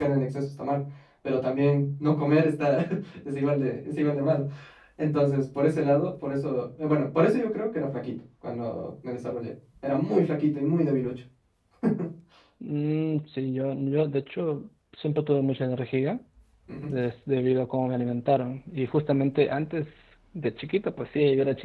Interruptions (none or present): none